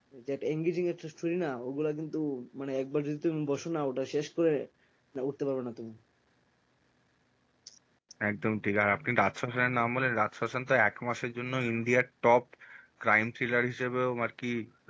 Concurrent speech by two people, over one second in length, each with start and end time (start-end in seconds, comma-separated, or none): none